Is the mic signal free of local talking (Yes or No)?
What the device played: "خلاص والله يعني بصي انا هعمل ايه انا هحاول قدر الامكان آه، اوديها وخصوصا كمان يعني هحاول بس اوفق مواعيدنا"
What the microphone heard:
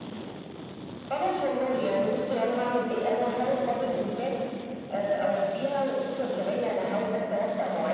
Yes